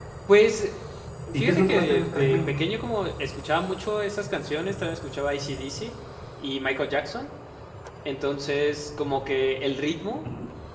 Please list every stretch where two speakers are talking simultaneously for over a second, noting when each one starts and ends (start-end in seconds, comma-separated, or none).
1.3-2.7